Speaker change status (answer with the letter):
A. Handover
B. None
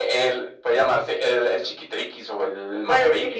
A